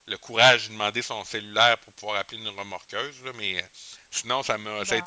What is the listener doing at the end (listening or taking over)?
listening